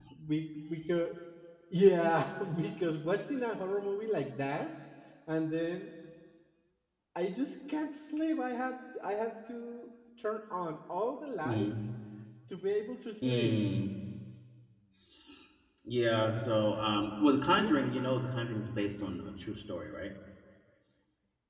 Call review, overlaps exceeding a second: none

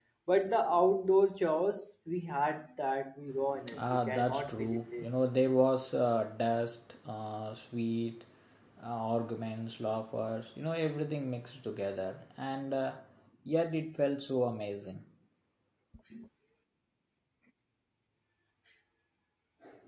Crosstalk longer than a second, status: present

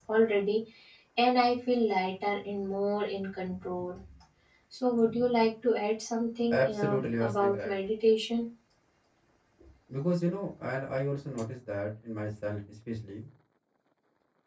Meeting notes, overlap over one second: present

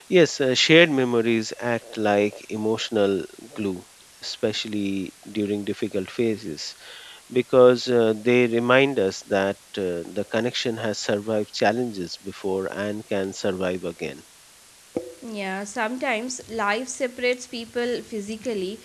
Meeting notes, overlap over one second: none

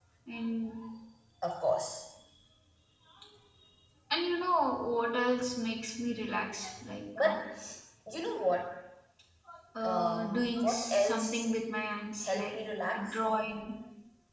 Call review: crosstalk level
present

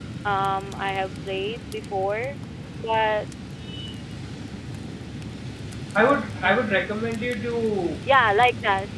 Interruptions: none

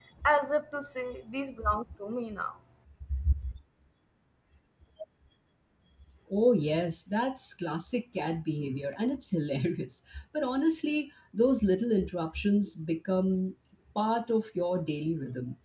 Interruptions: none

